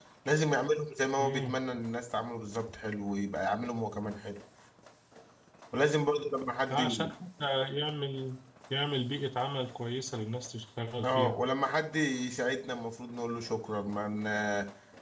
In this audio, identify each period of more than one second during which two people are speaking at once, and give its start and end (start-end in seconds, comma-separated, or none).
none